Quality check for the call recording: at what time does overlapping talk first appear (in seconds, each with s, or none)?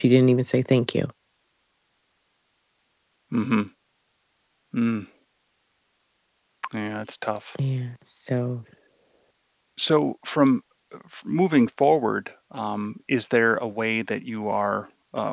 none